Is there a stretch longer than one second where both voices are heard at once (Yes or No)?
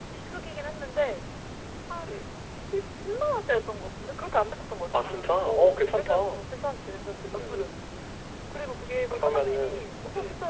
Yes